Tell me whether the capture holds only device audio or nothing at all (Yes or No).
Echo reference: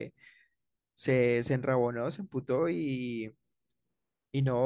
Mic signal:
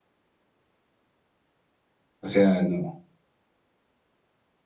No